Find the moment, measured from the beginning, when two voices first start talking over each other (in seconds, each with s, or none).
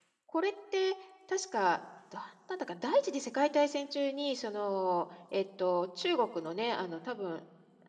none